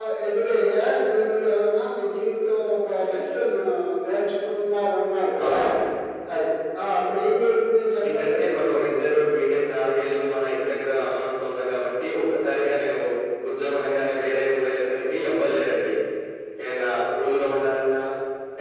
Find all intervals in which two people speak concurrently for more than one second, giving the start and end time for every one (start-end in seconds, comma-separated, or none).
none